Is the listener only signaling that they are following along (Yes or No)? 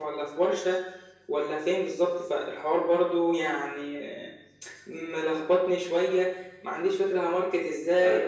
Yes